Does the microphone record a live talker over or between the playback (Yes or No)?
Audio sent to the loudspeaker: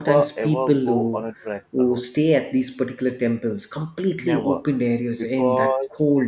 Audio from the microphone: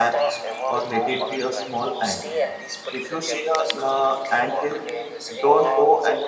Yes